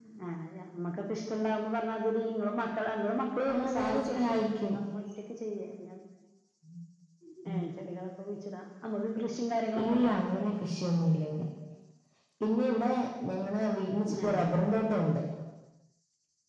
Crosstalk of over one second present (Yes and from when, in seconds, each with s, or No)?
Yes, from 3.5 s